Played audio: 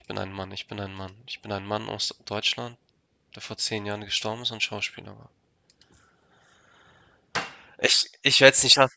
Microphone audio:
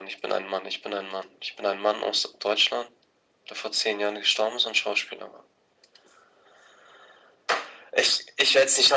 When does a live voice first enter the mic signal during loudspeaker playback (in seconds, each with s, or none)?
none